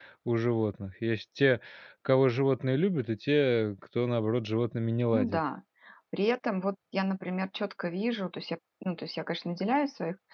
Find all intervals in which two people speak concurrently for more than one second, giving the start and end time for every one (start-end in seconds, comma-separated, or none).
none